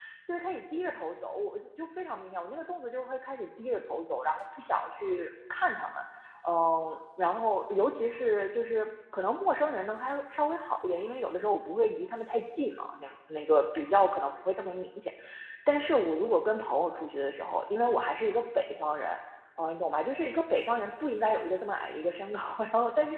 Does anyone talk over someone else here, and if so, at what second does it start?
none

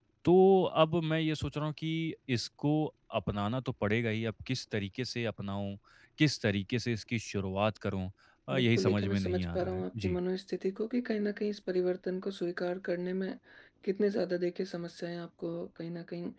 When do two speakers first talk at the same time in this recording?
9 s

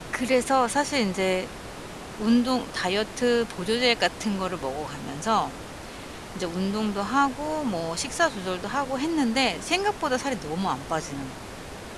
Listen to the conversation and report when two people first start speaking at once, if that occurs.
none

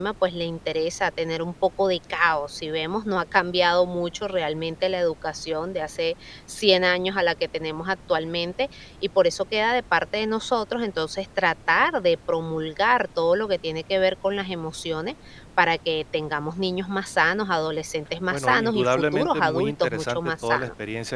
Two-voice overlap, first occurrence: 18 s

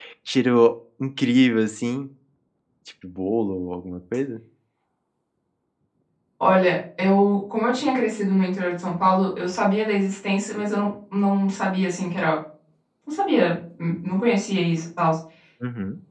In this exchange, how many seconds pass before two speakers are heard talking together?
none

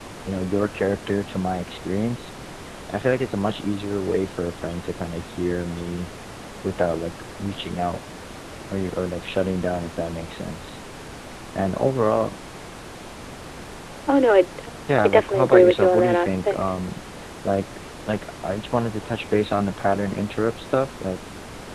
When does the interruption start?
15 s

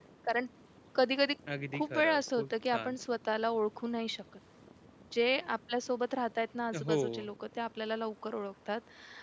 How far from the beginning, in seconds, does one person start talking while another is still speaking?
2 s

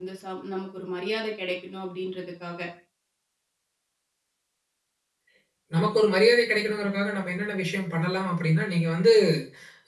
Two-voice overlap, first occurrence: none

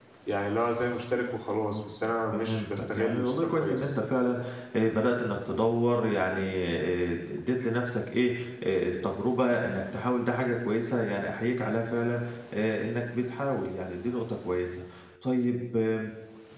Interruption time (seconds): 2 s

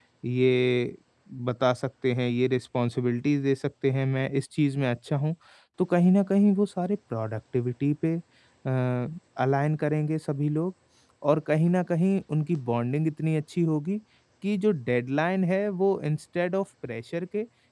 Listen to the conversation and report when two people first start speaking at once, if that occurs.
none

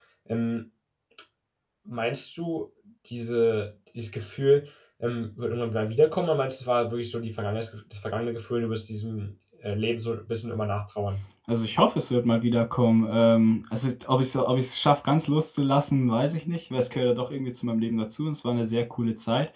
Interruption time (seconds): none

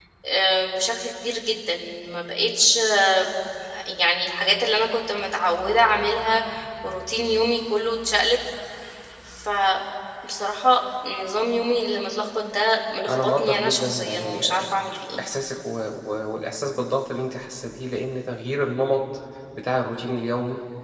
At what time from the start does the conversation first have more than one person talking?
13 s

